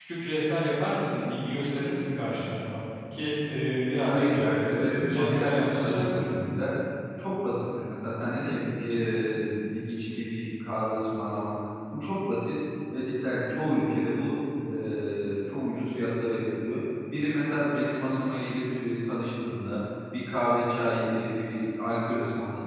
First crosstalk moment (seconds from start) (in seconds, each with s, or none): 4.0 s